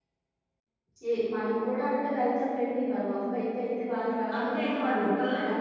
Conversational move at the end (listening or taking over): taking over